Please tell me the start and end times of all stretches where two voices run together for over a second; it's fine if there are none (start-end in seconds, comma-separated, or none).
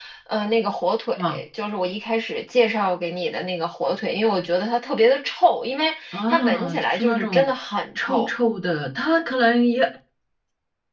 6.1-7.5